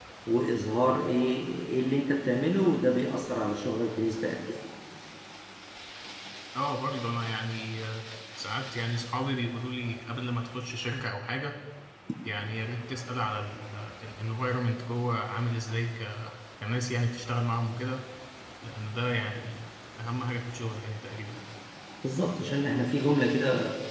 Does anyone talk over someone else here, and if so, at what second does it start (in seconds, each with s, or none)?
none